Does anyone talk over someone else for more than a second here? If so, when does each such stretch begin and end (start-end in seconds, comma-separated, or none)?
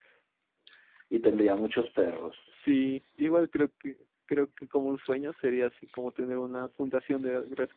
none